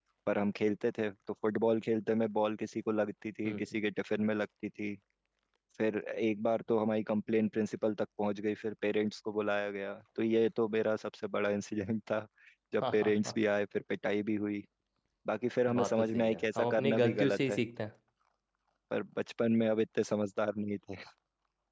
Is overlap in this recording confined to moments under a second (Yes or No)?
No